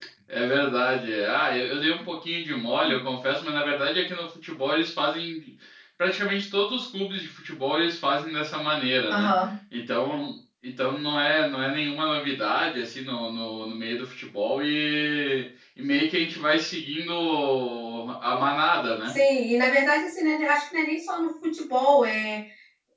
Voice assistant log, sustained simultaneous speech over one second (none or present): none